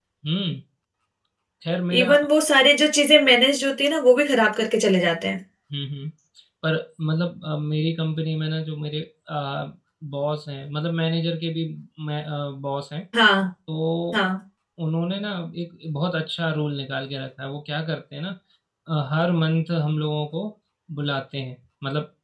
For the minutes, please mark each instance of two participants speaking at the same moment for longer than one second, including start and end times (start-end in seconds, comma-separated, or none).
none